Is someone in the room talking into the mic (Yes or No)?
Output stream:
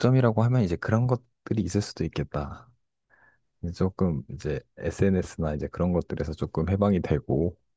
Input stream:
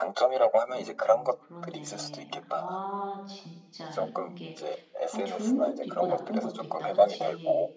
Yes